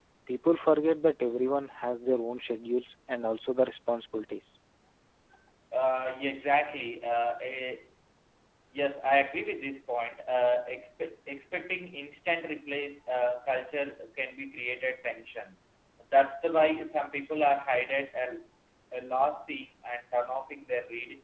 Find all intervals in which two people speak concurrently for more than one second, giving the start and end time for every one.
none

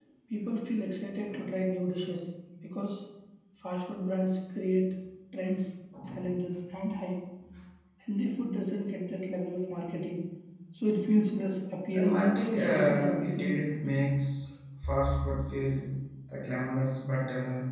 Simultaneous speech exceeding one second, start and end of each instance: 11.9-13.5

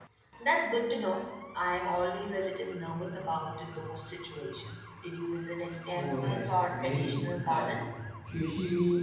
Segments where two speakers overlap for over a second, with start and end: 6.0-7.6

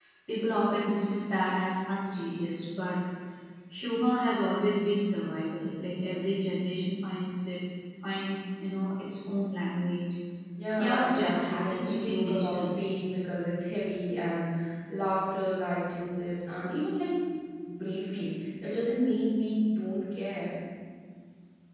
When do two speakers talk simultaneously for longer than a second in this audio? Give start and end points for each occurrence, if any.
10.8-12.6

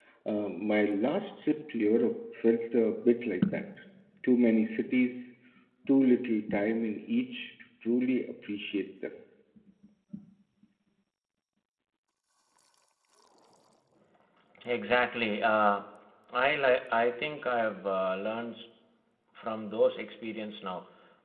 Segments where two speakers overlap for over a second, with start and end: none

